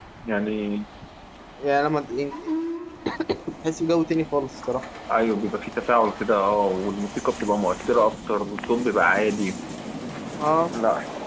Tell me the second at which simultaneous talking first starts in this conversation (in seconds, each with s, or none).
none